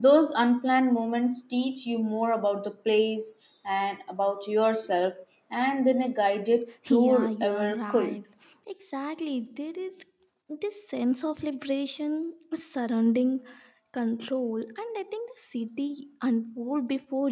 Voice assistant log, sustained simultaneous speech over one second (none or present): present